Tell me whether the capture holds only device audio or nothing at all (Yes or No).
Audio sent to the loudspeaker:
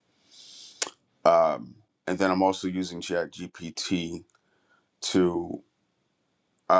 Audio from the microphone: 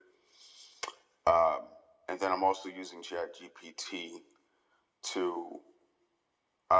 Yes